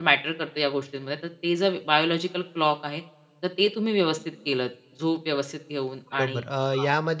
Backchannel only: No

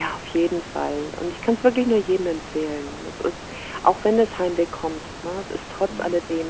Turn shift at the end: No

